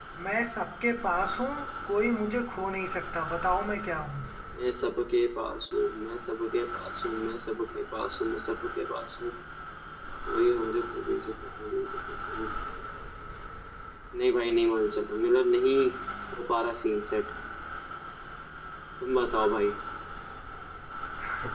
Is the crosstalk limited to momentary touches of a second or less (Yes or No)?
Yes